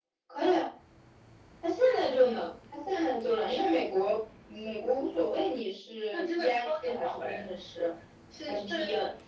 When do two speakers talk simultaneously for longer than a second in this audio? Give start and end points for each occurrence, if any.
6.1-7.5

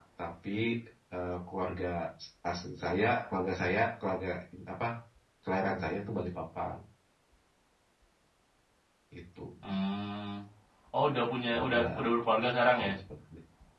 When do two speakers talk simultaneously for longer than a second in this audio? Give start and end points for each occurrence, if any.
none

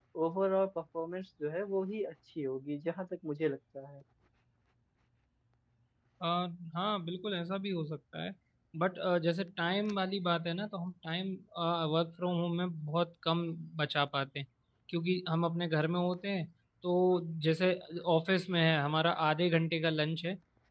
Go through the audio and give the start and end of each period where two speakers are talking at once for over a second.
none

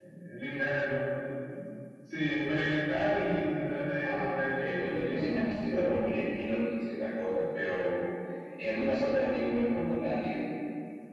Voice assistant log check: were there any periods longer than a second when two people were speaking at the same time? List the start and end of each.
4.0-5.3

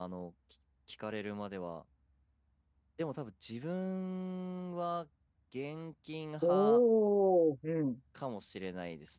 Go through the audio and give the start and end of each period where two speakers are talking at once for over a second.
none

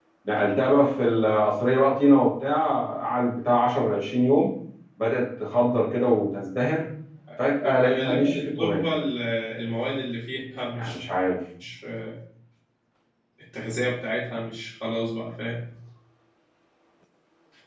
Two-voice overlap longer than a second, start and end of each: 7.6-8.8

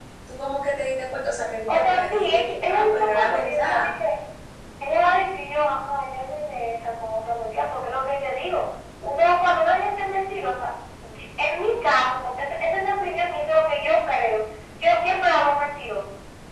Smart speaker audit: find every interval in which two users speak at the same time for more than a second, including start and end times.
1.7-3.9

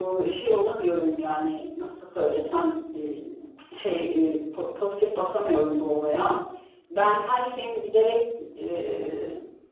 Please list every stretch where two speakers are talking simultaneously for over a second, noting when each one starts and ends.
none

